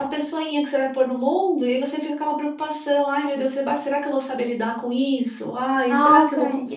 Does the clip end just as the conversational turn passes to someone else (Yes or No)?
Yes